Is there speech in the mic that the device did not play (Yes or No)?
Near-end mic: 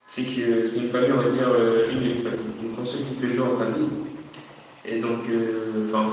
Yes